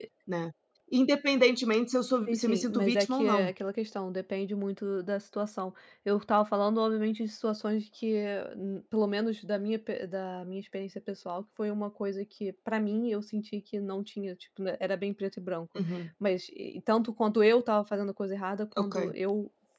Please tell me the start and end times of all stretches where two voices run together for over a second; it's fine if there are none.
2.3-3.5

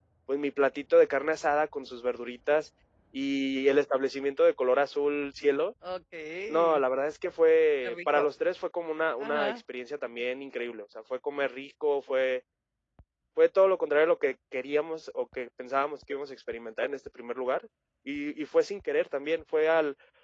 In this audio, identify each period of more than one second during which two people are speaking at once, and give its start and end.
none

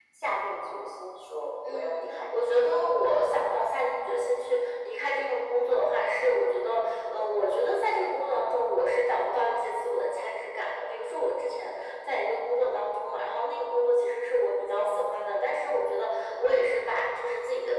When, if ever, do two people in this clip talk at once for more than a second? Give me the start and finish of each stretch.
1.7-3.0

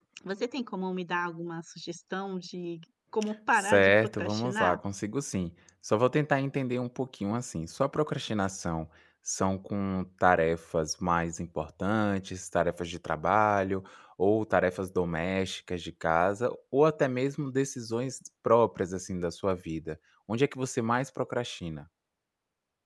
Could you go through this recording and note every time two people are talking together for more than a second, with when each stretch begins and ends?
3.5-4.8

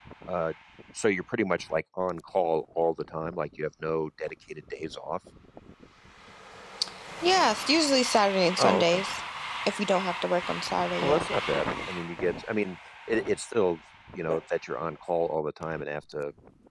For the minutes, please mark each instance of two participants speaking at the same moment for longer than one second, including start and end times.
none

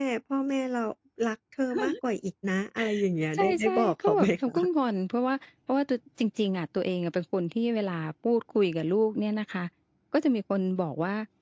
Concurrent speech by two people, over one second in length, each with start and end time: 3.4-4.7

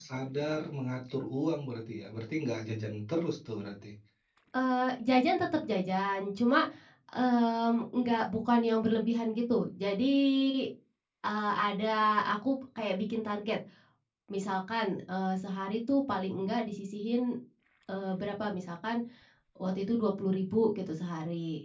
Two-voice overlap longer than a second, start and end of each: none

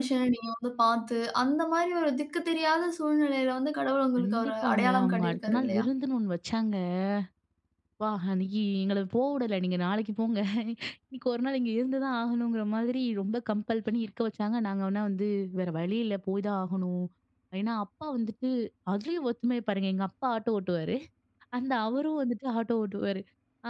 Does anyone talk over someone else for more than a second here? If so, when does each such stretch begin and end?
4.2-5.8

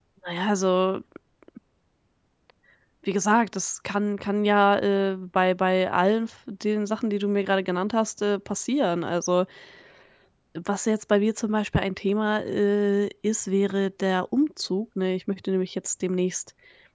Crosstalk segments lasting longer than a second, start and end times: none

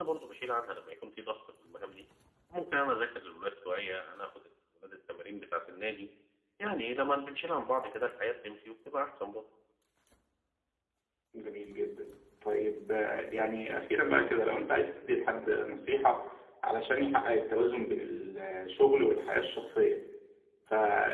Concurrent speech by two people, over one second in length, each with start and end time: none

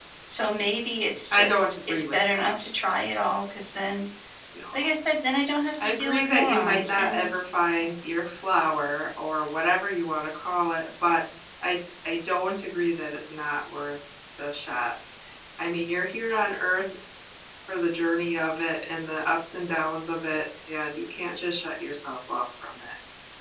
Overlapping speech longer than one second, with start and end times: 1.3-2.5, 5.8-7.3

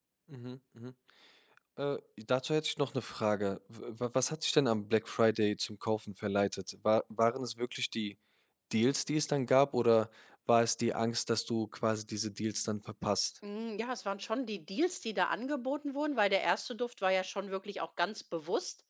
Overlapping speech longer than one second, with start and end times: none

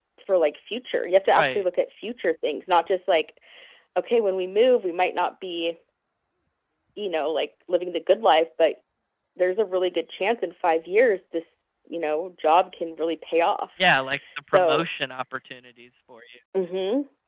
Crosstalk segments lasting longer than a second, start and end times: none

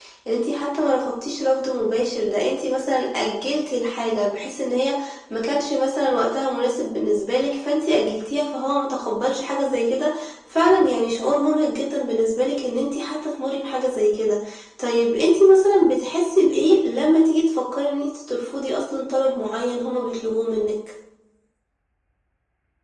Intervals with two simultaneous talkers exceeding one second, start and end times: none

